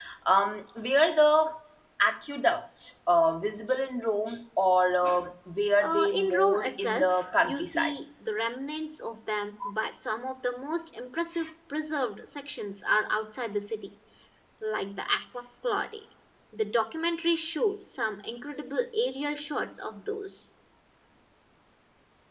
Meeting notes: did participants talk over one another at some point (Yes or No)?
Yes